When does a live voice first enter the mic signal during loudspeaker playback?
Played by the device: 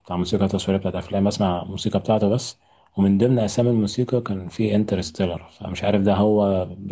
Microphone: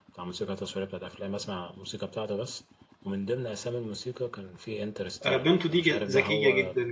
5.3 s

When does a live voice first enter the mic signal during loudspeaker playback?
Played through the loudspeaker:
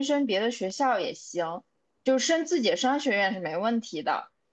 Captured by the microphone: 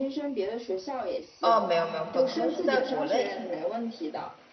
1.4 s

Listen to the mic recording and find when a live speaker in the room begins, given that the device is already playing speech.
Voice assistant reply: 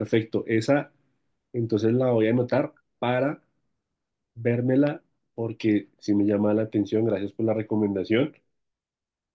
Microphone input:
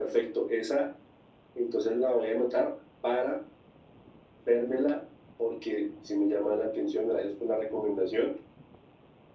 none

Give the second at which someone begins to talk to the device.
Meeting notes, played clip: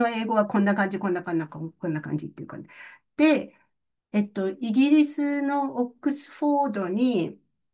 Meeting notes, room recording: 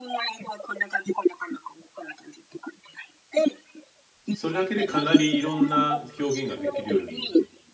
4.2 s

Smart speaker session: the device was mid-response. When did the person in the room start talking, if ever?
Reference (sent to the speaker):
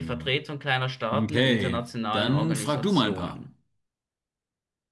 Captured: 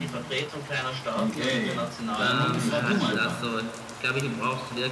2.1 s

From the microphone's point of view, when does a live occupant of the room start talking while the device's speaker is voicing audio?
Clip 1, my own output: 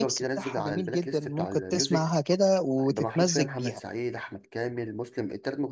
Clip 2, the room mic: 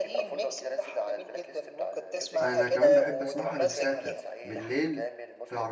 2.4 s

